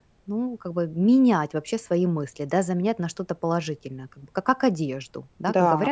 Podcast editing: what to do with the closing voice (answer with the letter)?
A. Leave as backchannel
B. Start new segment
A